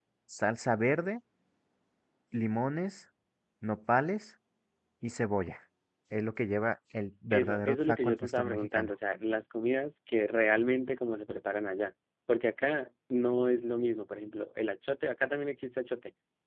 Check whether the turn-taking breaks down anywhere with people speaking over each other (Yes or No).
Yes